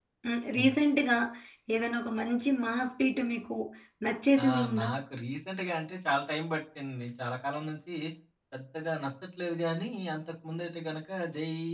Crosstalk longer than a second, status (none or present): none